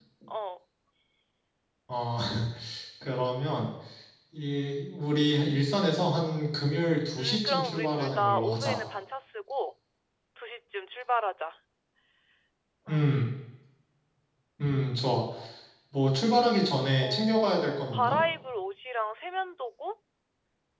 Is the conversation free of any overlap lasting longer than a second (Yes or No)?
No